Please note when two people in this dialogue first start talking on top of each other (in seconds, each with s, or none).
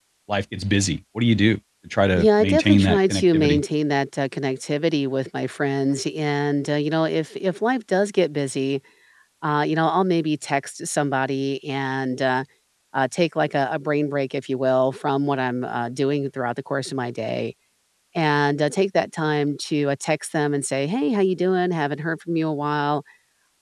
2.2 s